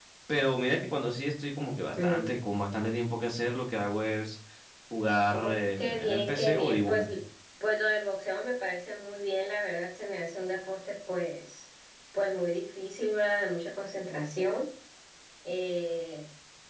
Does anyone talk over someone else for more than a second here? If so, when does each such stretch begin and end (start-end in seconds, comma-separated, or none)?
5.8-7.1